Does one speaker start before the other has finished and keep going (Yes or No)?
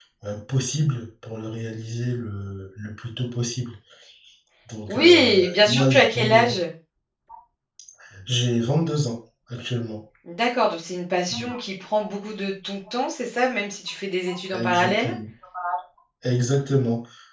Yes